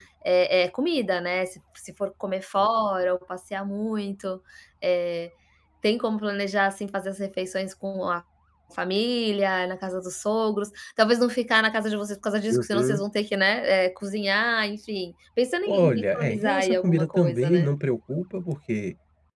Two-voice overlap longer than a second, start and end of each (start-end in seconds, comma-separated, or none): 15.7-17.7